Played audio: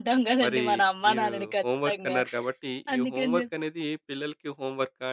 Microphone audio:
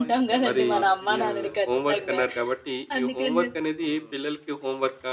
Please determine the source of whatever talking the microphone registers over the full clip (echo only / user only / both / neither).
both